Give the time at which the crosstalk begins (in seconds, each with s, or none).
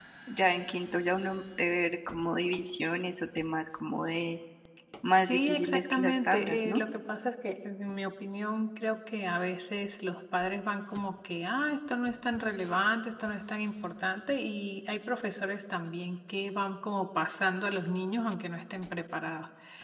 5.2 s